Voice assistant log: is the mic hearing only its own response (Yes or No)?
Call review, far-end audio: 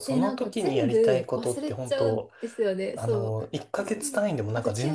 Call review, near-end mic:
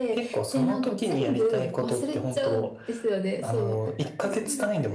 Yes